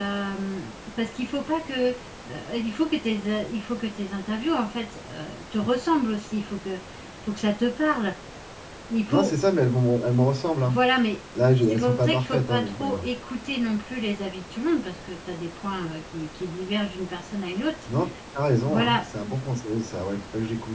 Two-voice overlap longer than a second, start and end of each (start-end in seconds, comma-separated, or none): 11.7-13.1